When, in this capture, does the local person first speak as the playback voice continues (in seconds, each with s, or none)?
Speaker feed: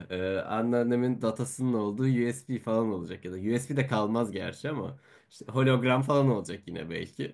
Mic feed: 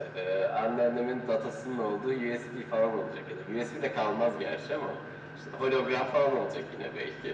none